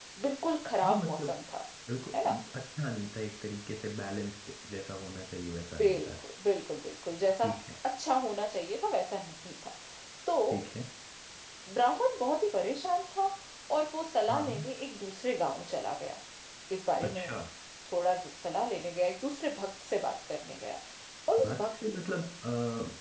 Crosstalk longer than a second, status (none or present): none